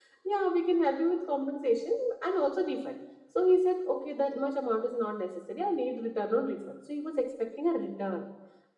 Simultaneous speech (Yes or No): No